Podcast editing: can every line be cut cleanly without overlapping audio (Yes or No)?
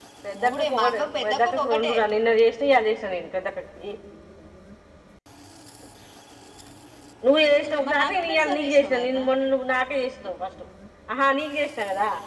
No